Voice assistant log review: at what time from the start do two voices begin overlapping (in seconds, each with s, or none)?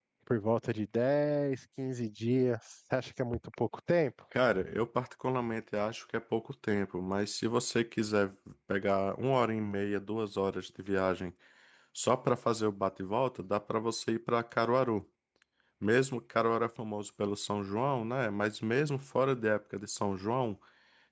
none